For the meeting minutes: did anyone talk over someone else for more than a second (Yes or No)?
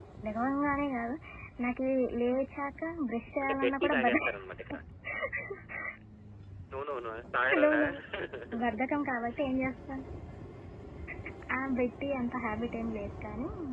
Yes